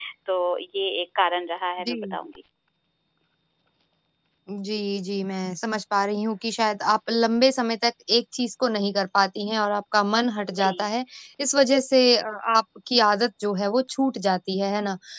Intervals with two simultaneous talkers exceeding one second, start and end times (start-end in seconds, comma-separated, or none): none